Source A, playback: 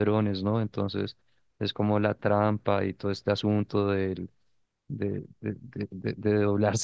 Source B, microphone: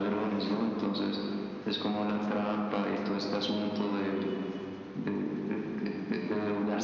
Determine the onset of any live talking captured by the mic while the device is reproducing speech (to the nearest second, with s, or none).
none